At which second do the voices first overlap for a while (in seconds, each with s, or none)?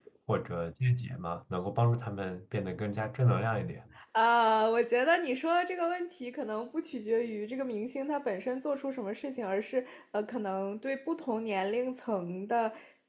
none